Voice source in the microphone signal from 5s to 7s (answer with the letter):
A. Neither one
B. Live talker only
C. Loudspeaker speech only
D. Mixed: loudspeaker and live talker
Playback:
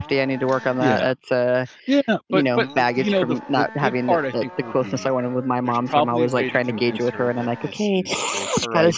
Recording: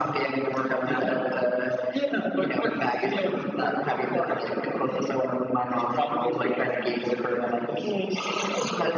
C